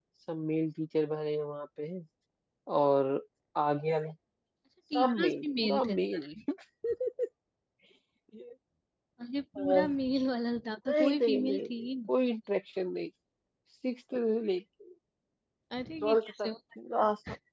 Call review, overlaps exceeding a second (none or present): present